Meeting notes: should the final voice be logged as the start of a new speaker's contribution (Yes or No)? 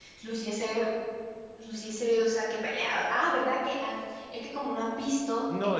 Yes